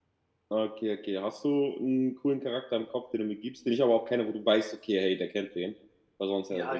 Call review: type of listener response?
taking over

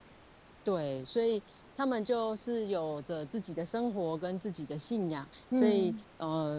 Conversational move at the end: listening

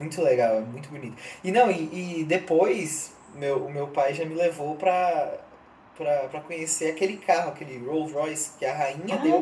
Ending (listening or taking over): taking over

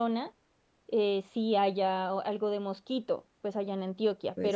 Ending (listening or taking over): listening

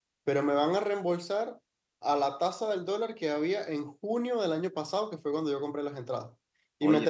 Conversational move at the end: listening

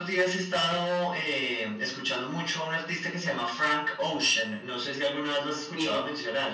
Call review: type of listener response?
taking over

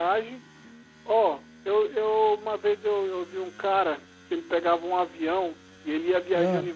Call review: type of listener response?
listening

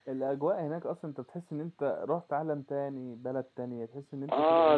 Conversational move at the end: taking over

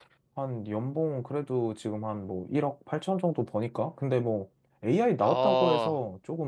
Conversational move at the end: listening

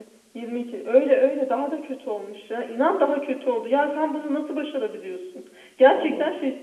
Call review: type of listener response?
listening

